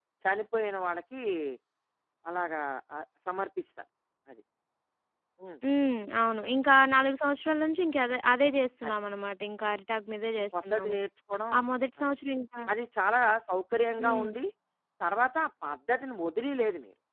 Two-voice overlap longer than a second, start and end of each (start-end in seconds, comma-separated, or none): none